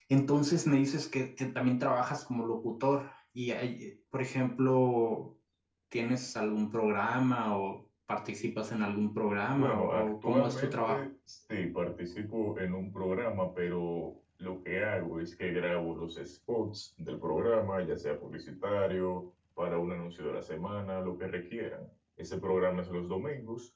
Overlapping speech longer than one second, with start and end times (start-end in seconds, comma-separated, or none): 9.6-11.0